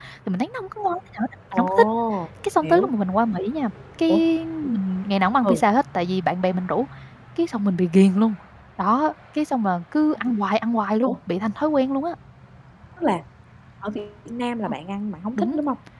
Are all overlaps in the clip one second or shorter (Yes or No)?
Yes